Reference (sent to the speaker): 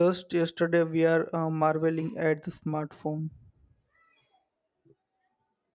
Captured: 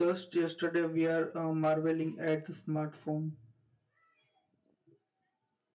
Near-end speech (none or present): none